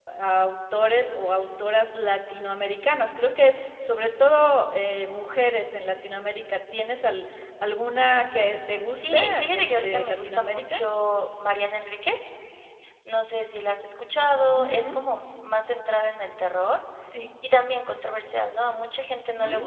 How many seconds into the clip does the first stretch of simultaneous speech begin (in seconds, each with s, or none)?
8.9 s